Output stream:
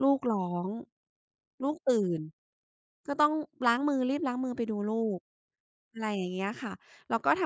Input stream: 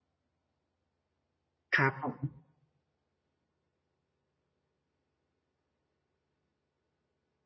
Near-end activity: present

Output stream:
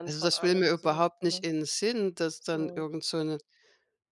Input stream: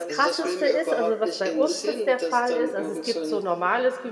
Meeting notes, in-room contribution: present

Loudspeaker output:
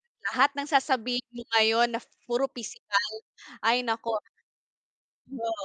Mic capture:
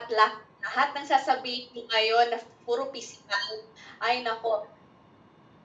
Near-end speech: none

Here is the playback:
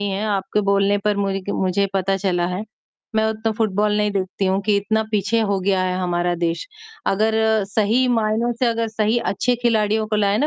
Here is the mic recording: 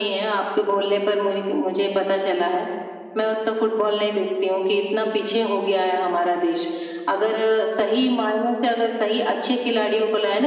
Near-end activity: none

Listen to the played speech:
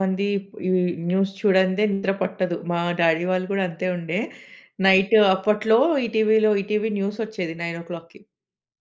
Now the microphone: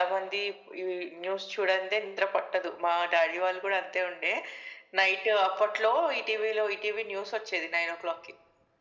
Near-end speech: none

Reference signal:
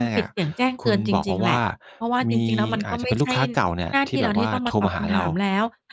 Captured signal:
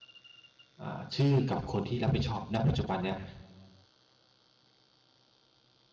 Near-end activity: present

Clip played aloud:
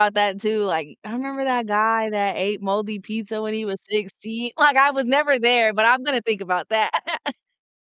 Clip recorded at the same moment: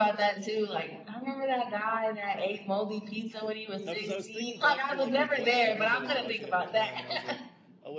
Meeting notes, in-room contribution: present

